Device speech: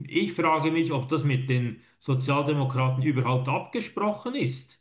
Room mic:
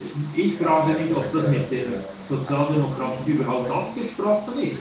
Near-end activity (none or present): present